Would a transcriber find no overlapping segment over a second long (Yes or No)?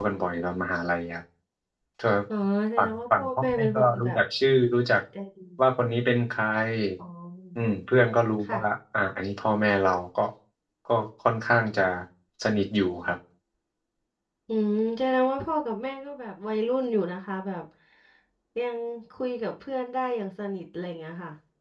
No